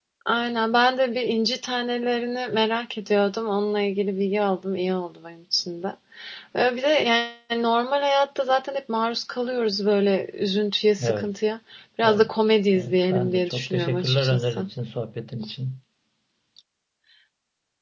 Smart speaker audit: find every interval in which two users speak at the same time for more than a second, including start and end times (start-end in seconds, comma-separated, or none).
12.7-14.7